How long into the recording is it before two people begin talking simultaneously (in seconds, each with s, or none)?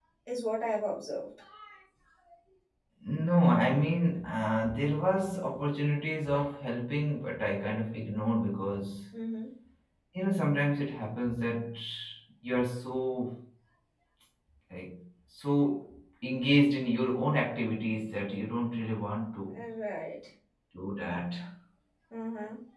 none